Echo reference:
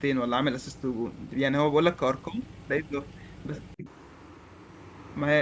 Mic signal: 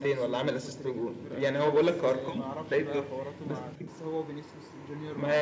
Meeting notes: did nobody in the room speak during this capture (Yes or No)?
No